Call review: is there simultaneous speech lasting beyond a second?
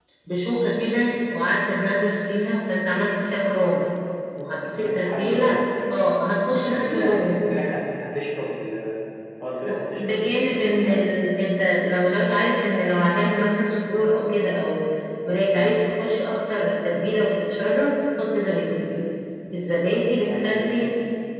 Yes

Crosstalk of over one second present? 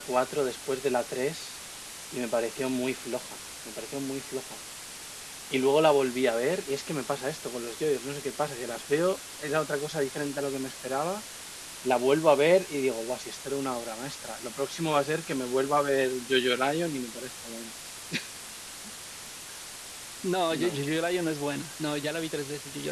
No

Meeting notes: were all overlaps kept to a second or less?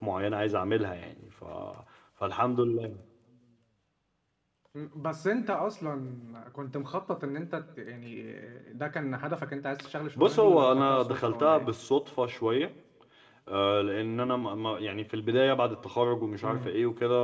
No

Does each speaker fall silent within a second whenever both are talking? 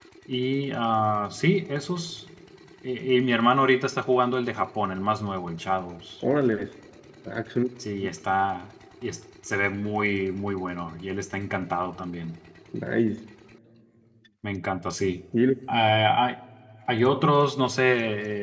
Yes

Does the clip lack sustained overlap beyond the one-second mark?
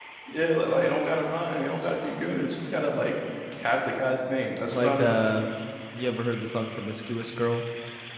Yes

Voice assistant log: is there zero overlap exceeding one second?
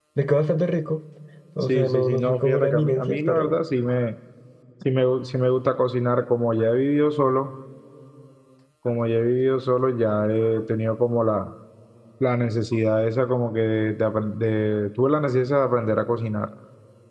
No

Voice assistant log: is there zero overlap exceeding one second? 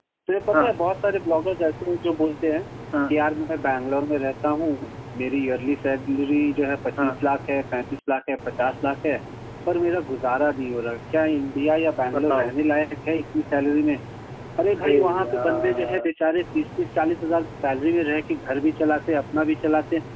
No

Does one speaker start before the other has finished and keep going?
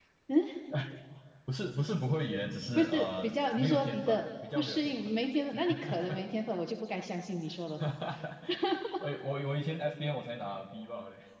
Yes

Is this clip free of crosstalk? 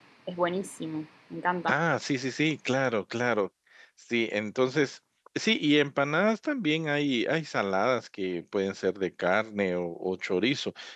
Yes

